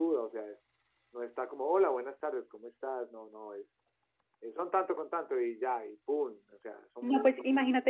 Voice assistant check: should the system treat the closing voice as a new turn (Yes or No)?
Yes